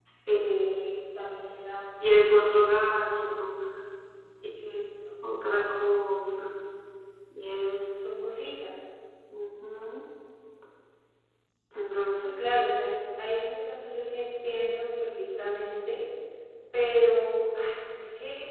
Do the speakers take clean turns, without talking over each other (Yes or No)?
No